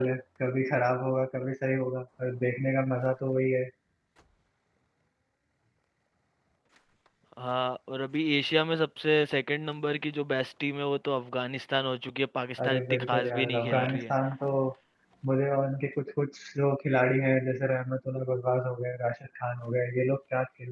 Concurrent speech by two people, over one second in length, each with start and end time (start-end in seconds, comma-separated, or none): 12.6-14.1